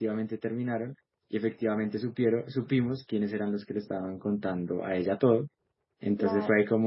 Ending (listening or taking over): listening